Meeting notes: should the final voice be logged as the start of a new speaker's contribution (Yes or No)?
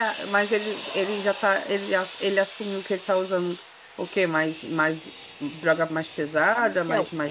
Yes